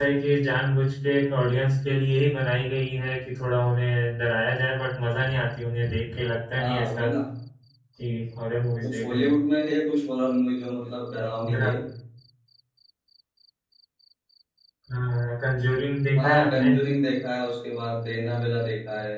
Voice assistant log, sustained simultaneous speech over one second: none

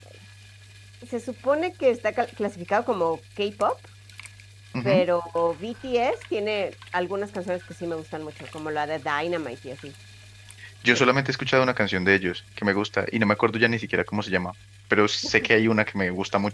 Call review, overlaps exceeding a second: none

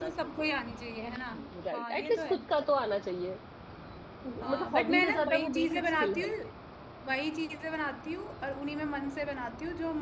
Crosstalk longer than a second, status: present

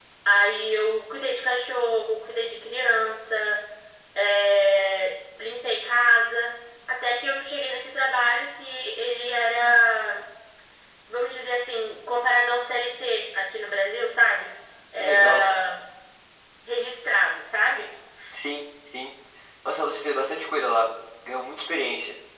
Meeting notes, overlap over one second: none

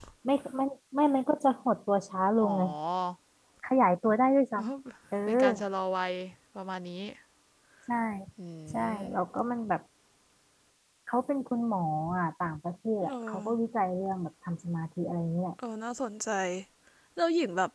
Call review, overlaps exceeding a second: none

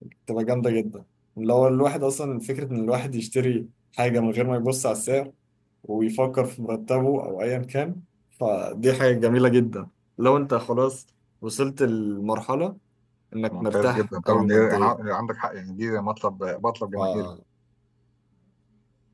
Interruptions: present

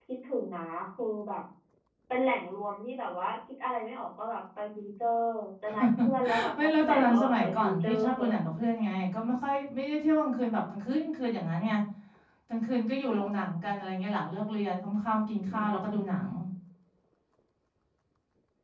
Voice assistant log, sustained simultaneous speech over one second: present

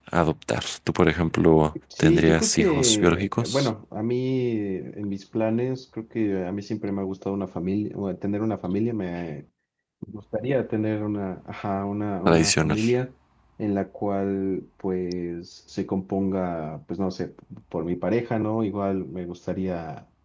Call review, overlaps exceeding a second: present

